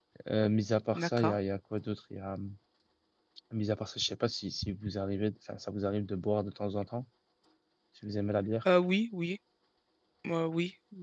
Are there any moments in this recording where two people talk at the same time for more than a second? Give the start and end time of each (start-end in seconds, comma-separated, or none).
none